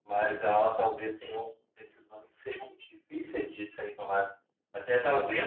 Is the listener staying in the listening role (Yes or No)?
Yes